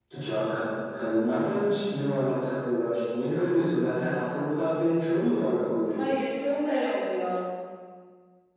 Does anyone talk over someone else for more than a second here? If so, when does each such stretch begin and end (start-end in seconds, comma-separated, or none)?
none